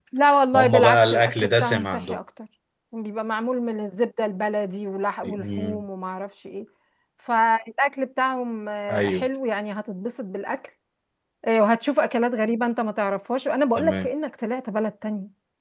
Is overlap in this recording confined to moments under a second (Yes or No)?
No